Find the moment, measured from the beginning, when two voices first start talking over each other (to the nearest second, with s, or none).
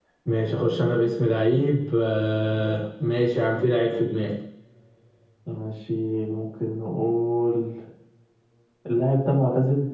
none